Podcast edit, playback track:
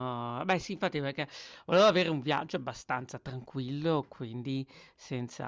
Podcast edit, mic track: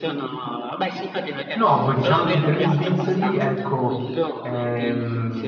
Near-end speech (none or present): present